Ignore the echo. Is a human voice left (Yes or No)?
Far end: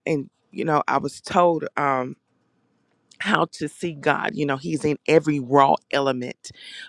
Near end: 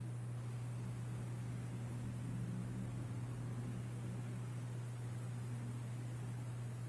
No